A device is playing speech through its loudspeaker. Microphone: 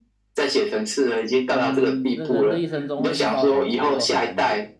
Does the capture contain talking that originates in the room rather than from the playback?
Yes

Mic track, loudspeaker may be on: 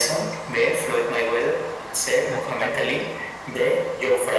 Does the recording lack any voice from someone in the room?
No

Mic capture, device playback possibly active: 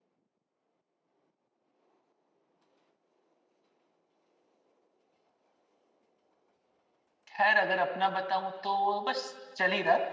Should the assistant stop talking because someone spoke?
Yes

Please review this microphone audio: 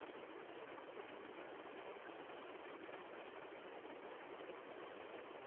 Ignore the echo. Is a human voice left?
No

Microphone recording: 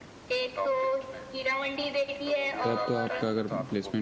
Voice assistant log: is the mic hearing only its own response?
No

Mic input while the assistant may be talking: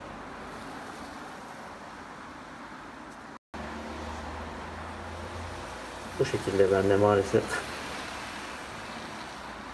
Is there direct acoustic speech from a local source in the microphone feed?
Yes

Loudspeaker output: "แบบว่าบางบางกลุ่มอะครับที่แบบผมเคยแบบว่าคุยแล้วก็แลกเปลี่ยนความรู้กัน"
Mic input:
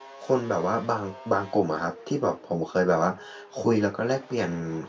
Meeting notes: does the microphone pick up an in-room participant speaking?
No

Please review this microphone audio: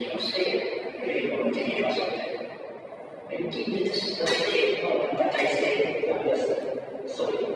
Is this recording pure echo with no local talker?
Yes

